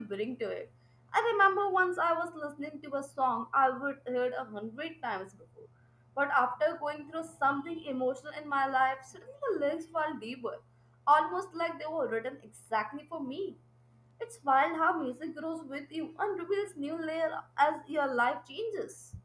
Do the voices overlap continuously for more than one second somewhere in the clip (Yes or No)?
No